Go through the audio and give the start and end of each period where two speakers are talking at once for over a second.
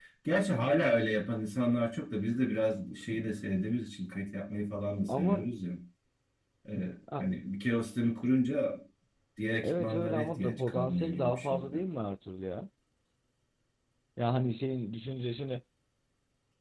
9.6-11.8

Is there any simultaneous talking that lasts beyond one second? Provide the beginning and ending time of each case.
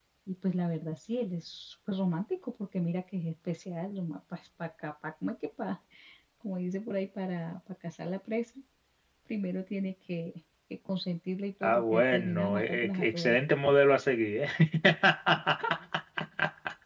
11.6-13.4

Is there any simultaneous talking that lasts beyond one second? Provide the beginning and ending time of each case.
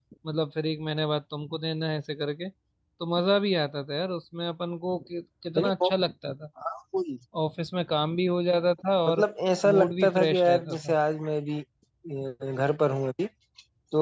9.7-10.9

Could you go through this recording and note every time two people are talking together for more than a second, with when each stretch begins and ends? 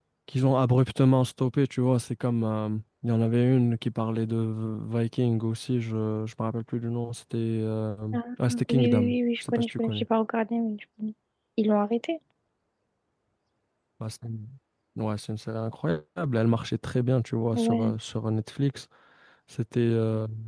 8.7-10.1

